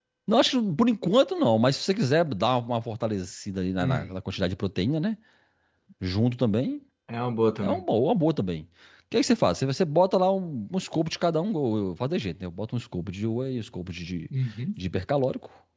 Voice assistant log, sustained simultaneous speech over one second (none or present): none